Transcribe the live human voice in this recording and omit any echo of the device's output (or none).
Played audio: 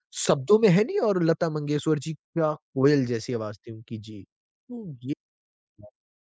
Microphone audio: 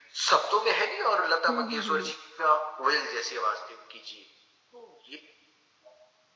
हम्म हम्म हम्म हम्म।